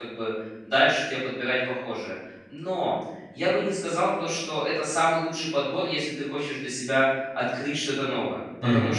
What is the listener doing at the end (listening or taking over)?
listening